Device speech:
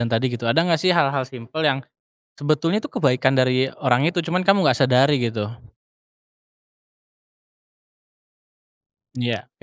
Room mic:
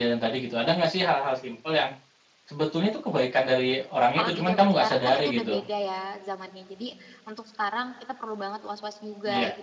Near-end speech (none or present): present